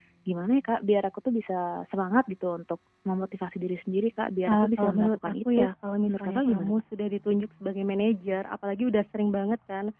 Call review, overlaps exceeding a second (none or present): present